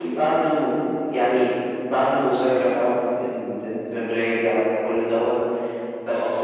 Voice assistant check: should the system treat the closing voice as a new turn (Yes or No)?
No